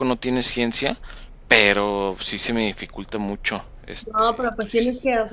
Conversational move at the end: taking over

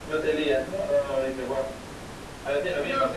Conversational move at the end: listening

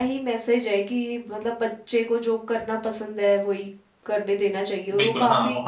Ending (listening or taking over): taking over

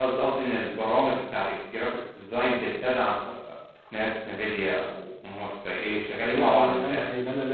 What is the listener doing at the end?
taking over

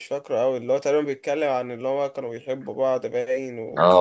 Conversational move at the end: taking over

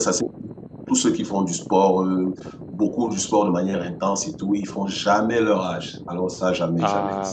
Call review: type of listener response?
taking over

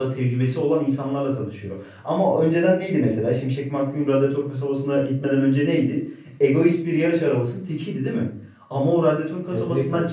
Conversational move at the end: listening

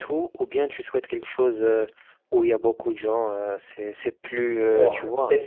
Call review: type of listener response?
taking over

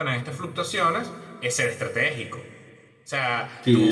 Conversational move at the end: taking over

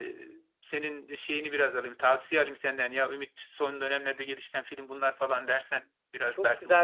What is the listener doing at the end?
taking over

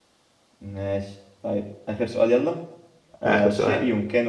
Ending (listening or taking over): listening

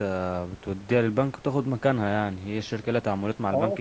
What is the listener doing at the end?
taking over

